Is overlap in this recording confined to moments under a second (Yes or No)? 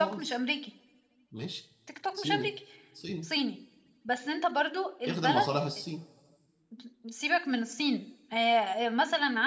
Yes